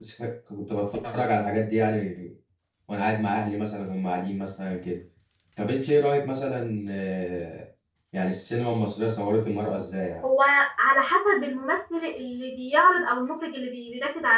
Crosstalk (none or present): none